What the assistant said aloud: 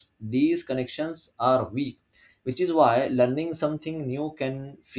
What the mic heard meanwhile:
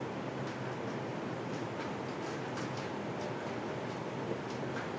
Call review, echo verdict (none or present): none